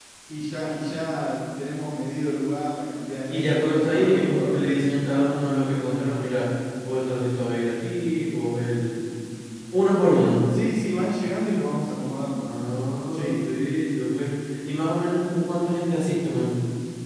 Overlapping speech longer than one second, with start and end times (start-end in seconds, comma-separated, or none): 3.3-4.6